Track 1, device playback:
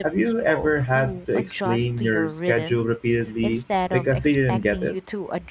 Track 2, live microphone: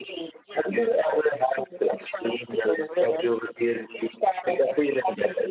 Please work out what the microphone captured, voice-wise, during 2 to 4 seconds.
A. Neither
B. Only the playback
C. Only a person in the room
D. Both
B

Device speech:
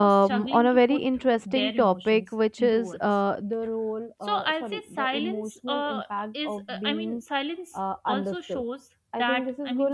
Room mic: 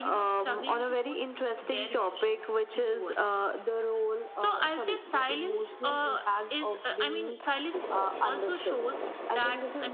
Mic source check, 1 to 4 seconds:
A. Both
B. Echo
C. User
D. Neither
B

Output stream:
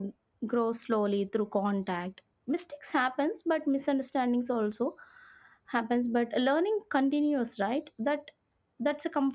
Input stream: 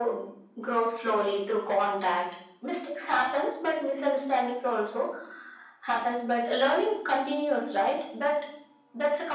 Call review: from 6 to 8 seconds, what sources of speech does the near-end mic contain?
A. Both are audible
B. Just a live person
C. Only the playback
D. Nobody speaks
C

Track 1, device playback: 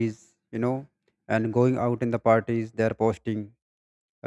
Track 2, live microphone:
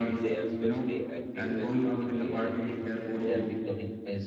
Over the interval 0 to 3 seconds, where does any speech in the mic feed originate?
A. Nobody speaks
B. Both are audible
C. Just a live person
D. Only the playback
B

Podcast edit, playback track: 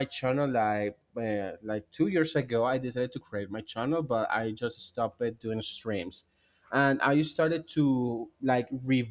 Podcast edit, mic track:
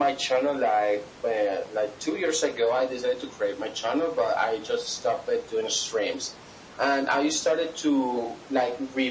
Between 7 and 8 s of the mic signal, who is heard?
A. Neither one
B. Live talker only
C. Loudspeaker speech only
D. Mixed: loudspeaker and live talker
C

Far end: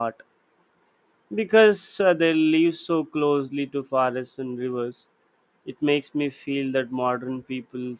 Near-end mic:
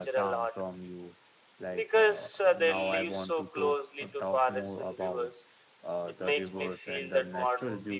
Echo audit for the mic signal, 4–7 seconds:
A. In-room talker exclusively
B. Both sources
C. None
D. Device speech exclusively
B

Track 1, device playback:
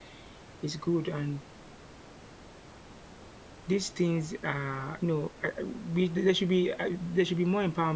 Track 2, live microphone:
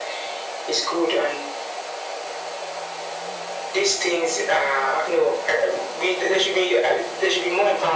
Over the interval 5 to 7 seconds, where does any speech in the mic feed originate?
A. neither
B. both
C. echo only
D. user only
C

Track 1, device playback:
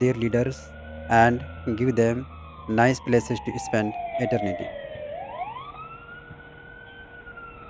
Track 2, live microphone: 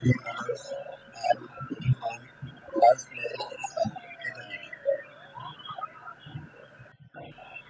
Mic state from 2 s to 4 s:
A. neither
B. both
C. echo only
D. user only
C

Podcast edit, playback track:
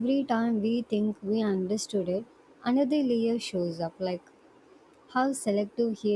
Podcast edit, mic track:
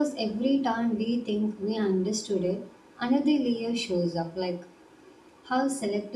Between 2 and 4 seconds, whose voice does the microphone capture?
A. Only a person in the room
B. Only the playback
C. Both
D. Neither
B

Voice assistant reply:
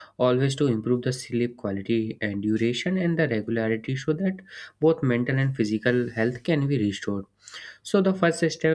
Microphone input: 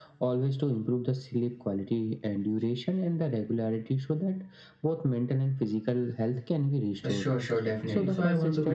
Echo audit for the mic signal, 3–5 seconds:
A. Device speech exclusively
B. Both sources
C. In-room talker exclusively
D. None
A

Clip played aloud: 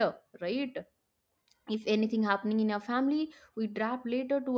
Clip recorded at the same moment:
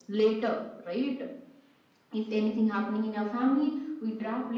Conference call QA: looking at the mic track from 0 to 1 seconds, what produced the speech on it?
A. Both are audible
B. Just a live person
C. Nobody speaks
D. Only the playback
D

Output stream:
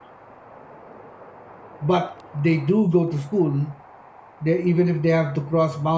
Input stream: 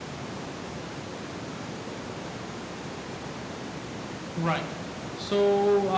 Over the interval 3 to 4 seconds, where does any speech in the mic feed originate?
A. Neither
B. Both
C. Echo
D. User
A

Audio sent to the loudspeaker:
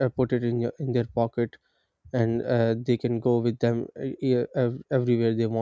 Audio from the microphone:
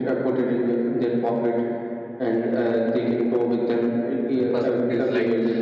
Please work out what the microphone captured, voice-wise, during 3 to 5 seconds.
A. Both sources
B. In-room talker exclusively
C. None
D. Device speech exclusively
A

